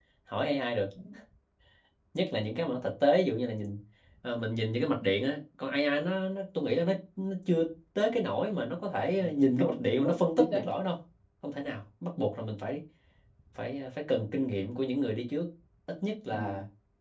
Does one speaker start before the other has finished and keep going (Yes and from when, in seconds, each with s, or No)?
Yes, from 9.2 s